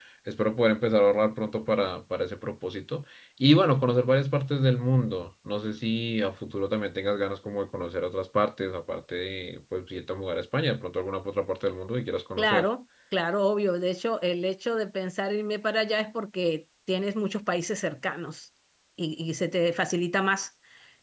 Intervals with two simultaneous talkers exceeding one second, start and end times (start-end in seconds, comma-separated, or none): none